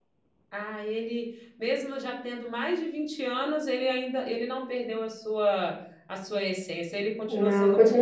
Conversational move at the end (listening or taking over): taking over